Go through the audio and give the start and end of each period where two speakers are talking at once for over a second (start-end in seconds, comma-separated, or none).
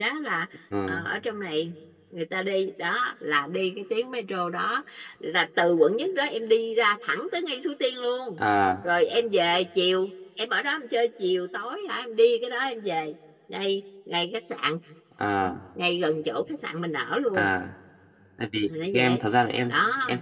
none